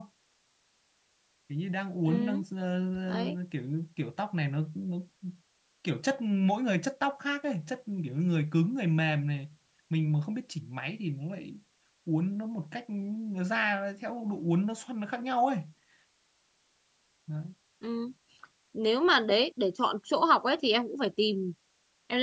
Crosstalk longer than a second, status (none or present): none